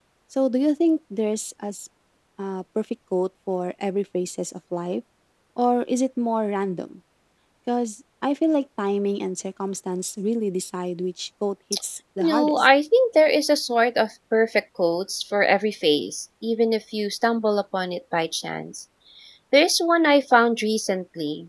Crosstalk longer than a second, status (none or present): none